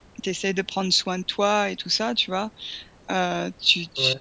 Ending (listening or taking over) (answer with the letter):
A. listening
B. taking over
A